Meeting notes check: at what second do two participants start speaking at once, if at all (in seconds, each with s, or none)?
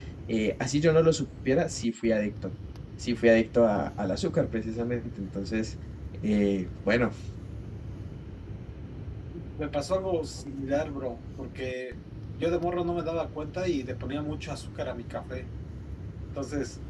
none